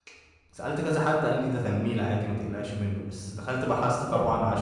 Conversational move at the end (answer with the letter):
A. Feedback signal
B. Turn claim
A